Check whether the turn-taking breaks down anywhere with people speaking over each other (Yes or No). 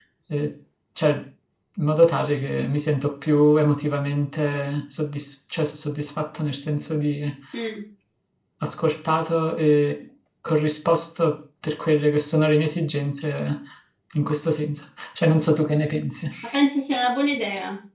No